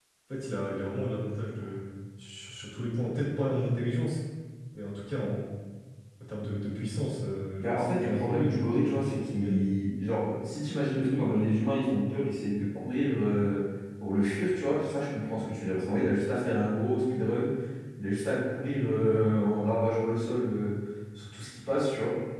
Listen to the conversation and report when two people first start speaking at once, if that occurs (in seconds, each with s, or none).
7.6 s